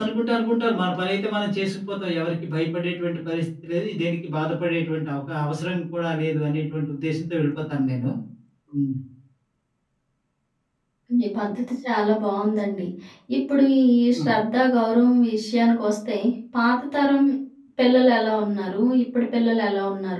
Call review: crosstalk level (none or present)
none